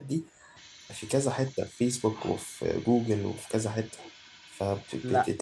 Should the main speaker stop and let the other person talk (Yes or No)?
No